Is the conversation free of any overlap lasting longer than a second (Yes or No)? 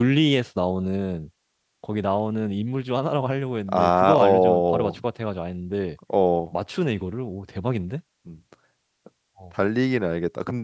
No